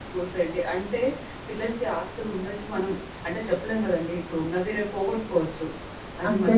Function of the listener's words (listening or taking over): listening